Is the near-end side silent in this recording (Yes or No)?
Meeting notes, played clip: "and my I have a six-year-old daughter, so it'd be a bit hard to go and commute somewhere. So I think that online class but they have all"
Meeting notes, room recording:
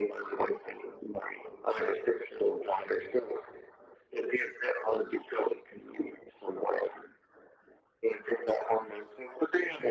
Yes